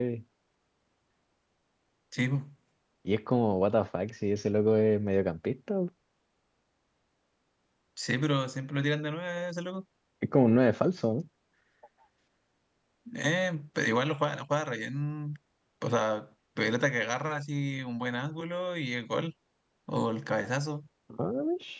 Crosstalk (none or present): none